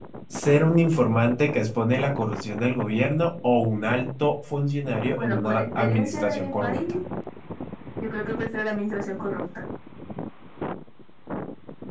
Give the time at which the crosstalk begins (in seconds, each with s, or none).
5.1 s